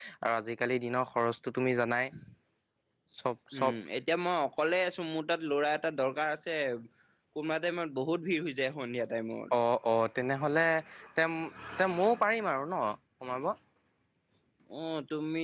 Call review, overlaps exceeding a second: none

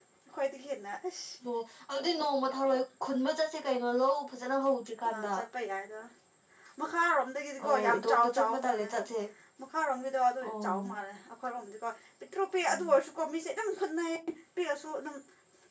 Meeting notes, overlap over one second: present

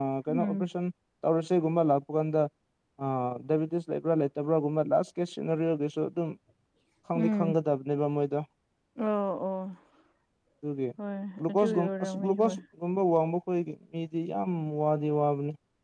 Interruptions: present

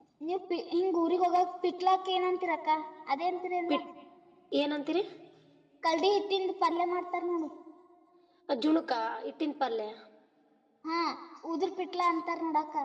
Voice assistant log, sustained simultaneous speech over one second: none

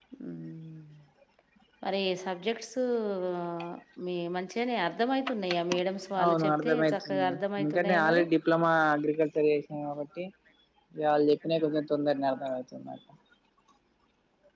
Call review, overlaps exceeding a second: present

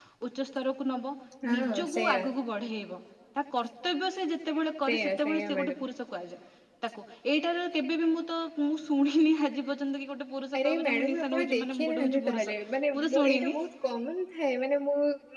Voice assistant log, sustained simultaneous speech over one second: present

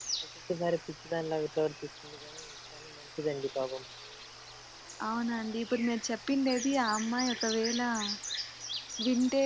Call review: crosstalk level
none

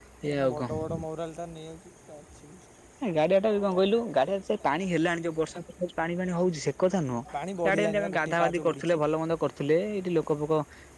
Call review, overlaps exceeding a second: present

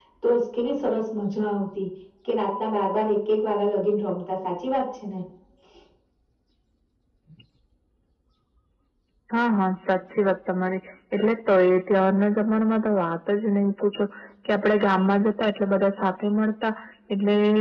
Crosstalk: none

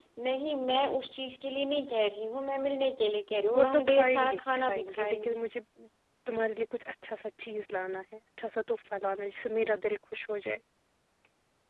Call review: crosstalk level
present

